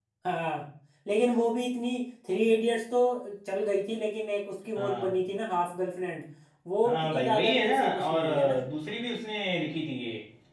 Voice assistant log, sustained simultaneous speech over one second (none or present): present